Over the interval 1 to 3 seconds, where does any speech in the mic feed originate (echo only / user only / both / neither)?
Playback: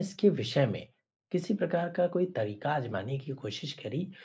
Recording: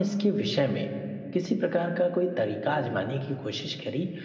echo only